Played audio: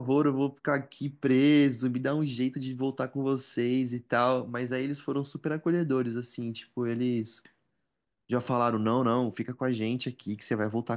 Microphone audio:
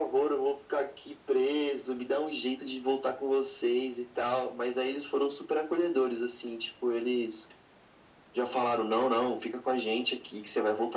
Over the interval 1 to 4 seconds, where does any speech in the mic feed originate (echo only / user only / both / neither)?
echo only